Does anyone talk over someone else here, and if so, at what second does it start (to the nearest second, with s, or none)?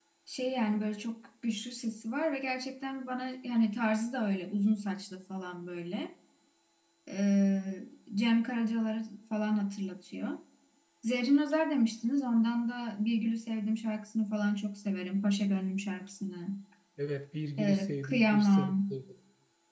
18 s